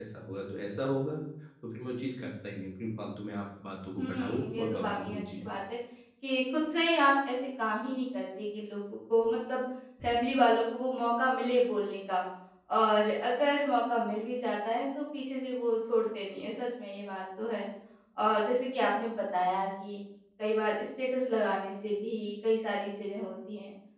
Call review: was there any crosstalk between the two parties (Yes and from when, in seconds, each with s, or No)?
Yes, from 4.0 s